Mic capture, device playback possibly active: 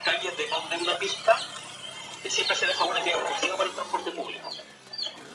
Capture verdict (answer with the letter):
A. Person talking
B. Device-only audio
B